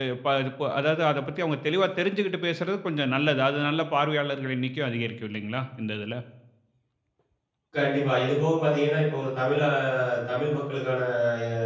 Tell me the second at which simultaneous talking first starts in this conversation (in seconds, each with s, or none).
none